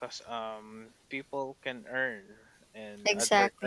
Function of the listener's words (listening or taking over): listening